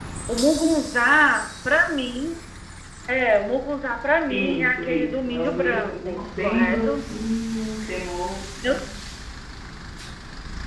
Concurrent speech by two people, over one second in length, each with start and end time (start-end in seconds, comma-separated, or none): 4.3-7.0